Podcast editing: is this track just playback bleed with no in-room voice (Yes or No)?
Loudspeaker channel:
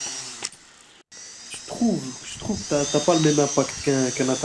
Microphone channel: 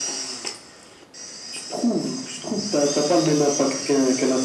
Yes